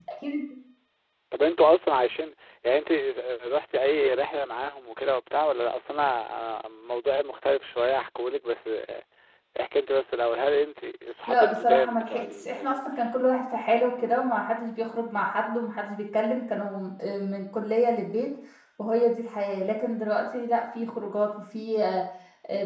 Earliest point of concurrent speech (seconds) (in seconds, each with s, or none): 11.3 s